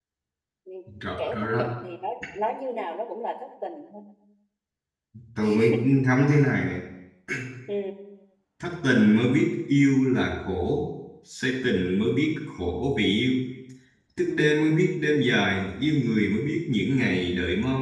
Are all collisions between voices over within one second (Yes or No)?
Yes